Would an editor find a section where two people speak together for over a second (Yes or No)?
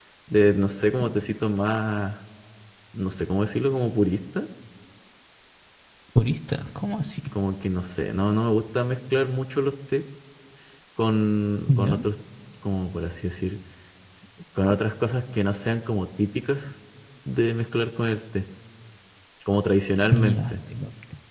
No